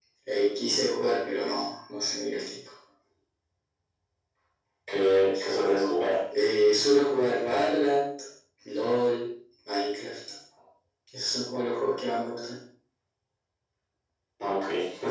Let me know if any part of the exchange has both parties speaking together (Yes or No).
No